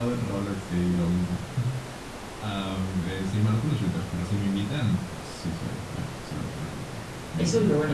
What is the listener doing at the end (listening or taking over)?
taking over